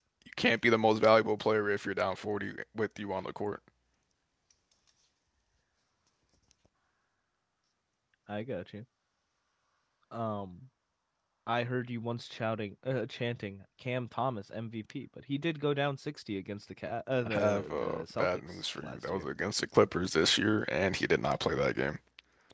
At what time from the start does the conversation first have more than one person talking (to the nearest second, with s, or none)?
17 s